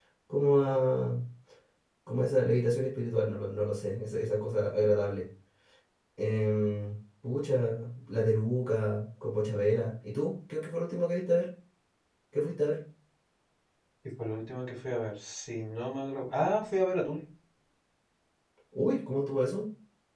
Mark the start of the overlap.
none

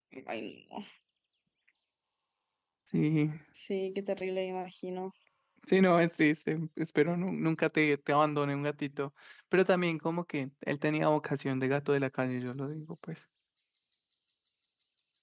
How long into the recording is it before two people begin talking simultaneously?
none

